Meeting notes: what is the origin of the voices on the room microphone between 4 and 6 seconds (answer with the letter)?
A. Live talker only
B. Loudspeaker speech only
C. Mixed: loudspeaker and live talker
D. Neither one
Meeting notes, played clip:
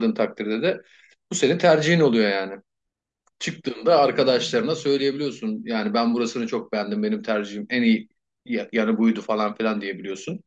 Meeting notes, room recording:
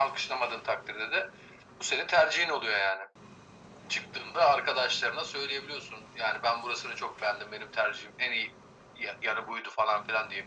B